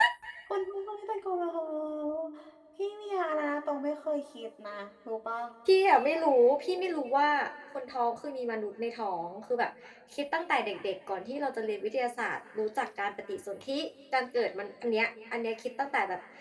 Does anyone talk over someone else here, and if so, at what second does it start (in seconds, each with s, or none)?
none